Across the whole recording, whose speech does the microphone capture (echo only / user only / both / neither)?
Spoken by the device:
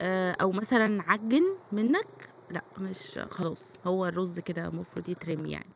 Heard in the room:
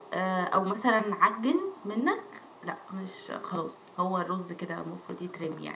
echo only